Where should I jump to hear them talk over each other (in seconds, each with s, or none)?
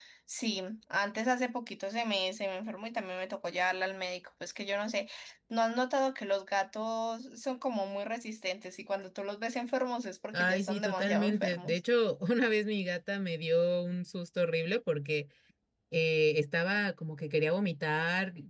10.3 s